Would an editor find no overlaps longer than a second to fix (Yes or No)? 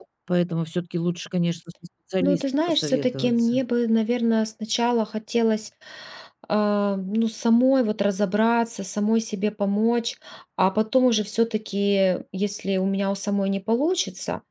No